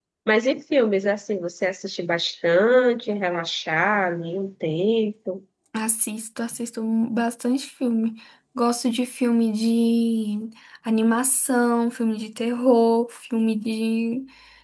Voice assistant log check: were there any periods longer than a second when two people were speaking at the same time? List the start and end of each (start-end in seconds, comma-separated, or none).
none